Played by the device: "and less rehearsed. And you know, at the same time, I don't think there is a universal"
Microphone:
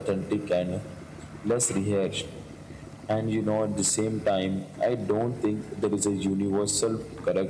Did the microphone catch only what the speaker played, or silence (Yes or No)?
Yes